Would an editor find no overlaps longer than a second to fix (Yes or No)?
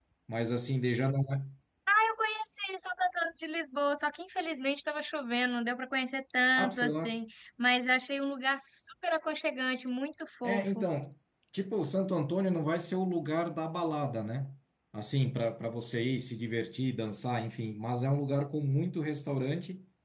Yes